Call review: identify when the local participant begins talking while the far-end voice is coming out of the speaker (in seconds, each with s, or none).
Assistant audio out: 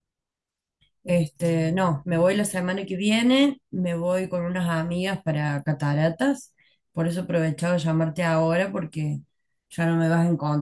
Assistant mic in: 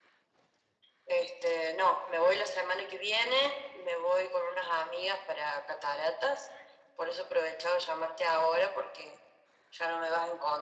none